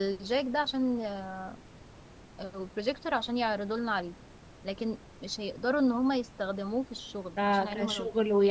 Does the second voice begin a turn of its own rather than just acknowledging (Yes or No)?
Yes